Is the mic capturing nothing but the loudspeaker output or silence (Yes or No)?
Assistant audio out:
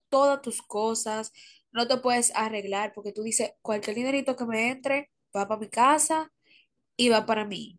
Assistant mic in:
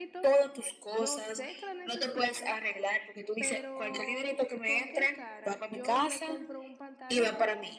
No